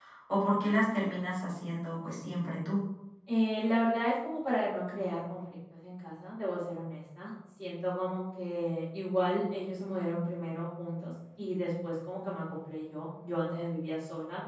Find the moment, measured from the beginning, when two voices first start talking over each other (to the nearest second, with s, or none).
none